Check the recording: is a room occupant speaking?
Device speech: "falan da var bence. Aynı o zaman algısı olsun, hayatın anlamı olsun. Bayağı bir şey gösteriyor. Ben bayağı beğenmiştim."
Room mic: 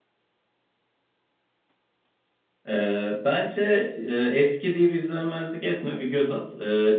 Yes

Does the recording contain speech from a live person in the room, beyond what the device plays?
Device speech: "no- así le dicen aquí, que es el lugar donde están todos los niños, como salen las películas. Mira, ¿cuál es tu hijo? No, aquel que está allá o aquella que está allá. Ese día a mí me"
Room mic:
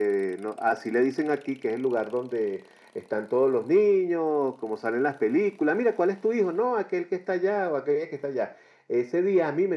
No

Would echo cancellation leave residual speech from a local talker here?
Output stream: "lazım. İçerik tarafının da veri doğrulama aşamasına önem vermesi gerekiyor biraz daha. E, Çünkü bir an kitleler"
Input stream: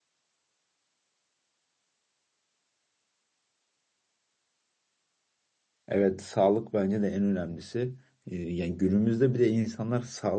Yes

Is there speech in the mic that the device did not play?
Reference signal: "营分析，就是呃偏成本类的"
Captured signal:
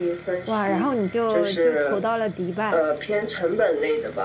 Yes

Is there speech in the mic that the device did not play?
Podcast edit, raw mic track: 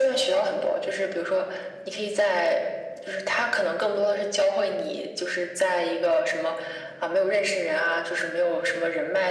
No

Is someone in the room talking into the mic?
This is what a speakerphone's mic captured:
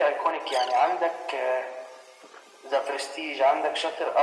No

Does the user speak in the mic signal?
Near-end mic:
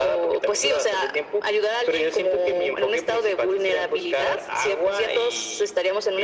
No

